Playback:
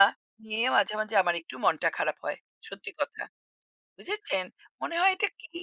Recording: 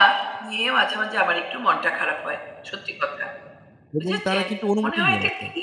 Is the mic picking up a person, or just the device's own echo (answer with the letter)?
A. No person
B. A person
B